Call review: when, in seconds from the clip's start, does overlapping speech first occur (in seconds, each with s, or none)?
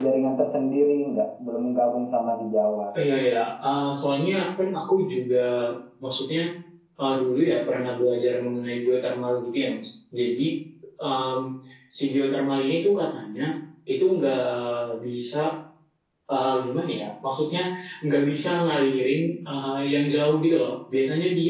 none